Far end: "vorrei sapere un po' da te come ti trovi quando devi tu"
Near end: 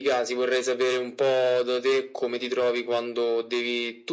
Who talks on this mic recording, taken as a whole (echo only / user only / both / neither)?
echo only